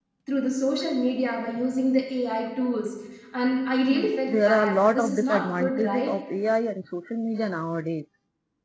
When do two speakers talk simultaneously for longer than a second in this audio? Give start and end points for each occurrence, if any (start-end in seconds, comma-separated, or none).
3.9-6.1